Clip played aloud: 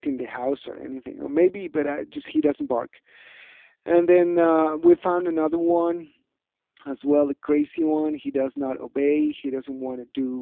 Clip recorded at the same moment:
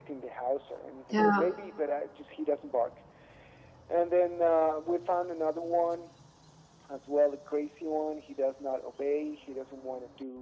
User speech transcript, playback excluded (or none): Yeah.